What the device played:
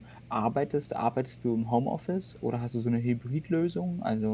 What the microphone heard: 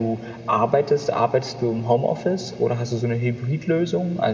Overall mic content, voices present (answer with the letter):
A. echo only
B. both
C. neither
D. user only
A